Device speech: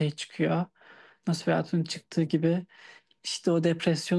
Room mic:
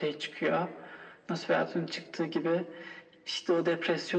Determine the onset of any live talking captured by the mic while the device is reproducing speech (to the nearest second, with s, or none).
none